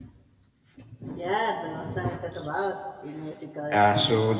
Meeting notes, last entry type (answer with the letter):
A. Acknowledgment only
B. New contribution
B